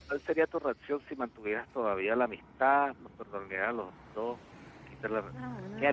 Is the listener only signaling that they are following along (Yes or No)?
No